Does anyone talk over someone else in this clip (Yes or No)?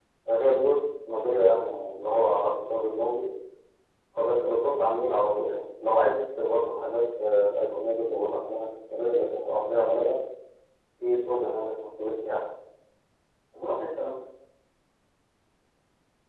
No